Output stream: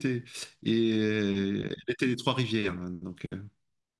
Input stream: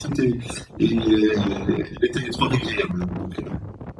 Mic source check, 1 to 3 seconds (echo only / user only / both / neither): echo only